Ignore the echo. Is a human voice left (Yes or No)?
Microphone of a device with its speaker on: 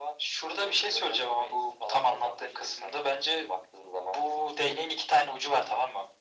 No